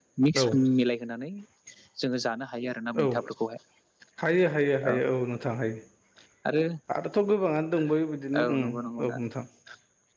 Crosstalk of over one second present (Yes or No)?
No